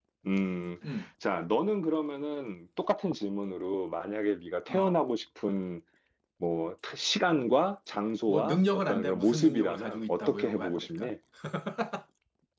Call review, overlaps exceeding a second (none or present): present